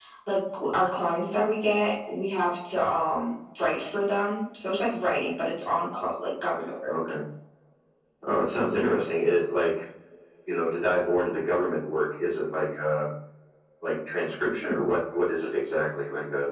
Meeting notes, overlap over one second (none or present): none